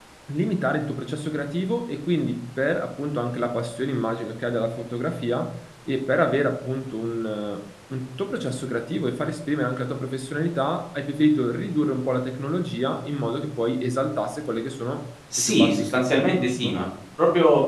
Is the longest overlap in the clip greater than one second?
Yes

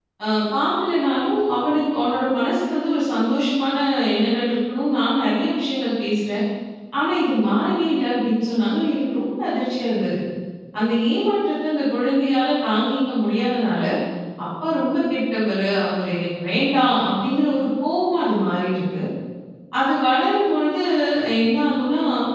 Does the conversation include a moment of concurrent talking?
No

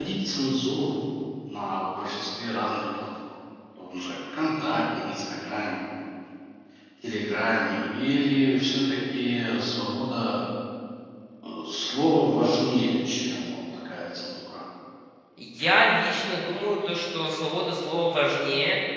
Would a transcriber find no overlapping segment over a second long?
Yes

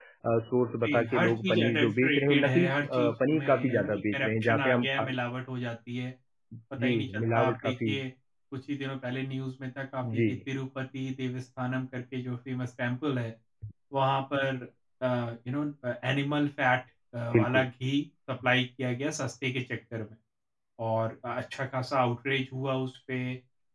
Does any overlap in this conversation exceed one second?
Yes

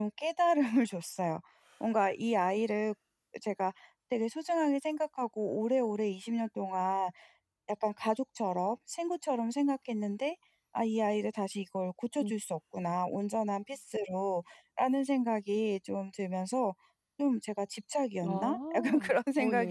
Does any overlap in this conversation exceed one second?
Yes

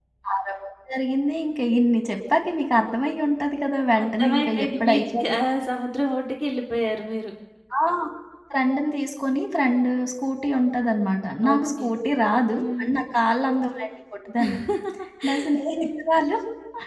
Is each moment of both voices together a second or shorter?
No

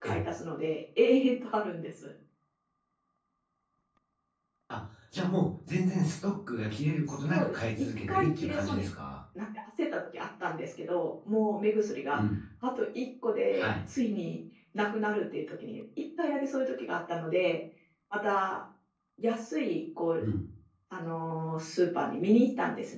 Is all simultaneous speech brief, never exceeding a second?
No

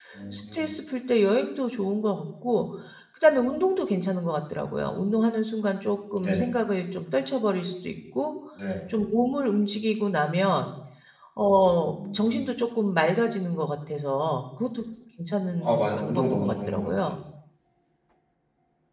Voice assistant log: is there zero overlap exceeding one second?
No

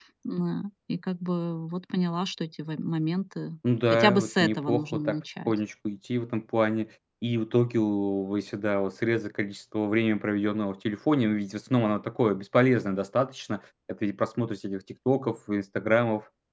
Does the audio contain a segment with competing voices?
Yes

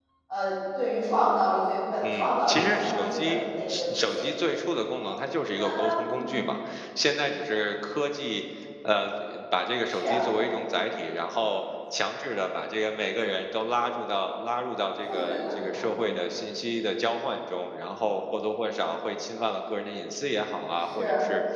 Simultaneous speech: Yes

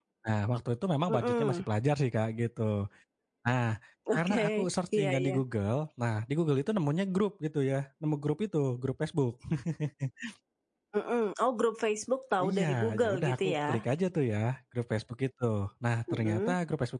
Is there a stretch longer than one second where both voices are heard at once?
Yes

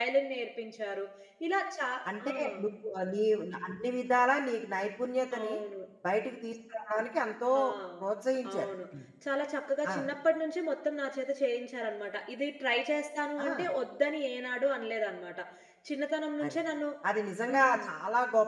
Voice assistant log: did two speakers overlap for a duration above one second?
No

